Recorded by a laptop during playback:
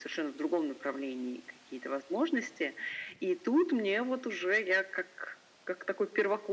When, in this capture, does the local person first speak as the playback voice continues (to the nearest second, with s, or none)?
none